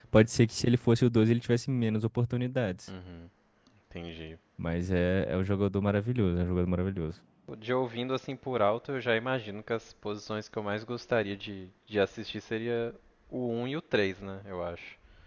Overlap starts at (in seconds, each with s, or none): none